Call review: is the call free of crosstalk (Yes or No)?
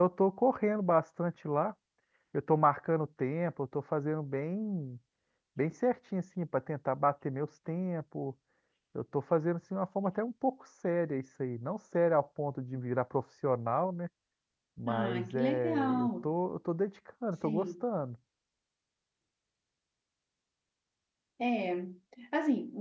No